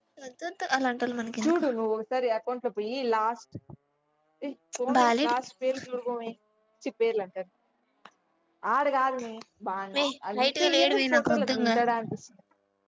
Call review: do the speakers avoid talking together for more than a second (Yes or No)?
No